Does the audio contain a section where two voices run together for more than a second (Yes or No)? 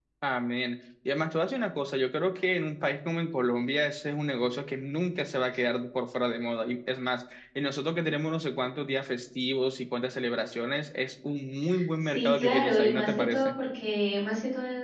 Yes